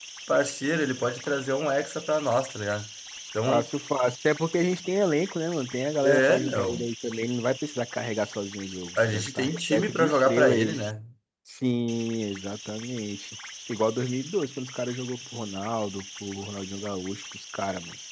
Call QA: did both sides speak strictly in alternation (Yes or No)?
No